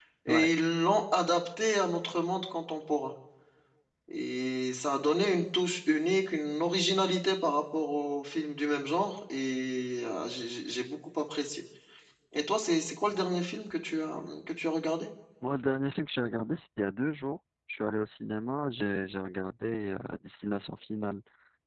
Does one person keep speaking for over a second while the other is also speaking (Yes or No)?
No